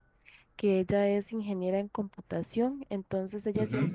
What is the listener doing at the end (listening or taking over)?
listening